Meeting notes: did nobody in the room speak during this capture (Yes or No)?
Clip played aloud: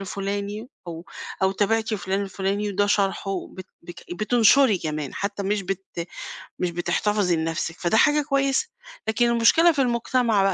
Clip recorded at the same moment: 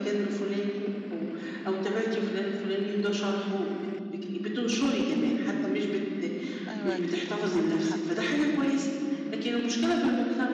No